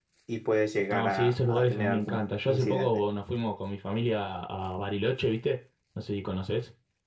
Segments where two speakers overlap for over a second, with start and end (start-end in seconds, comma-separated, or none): 0.9-3.0